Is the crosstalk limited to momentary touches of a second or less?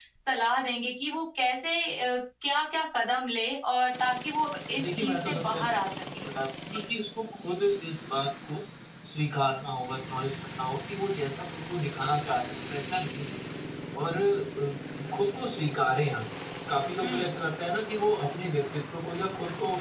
No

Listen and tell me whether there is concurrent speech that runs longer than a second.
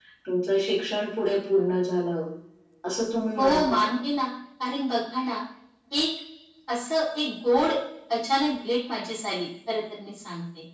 No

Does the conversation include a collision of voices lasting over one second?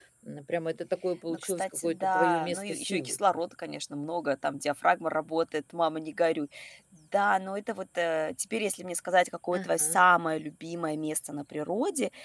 Yes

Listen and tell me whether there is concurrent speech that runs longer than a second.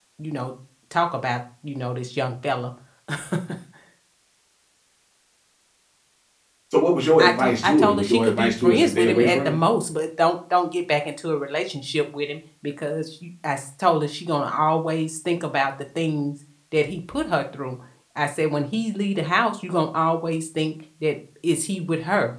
Yes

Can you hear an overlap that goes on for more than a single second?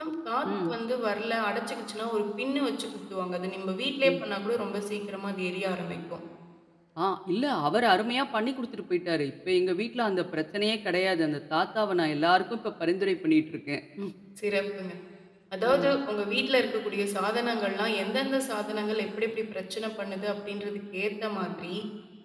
No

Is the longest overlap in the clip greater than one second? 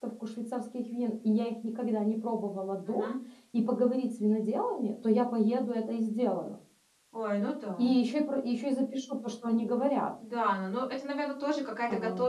No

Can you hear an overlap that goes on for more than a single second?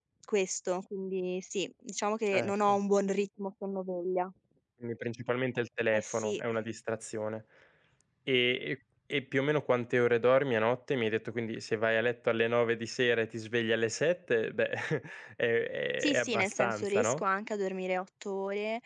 Yes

